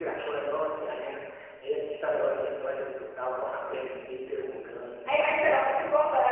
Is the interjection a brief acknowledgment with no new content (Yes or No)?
No